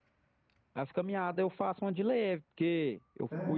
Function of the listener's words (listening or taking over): listening